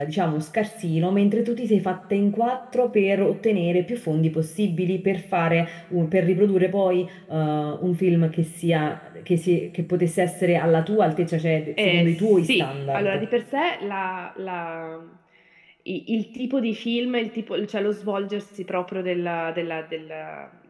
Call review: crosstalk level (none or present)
present